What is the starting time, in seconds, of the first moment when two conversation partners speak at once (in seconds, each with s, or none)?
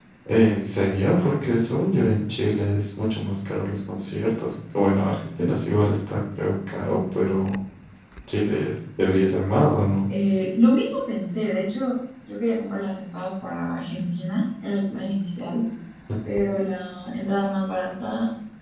none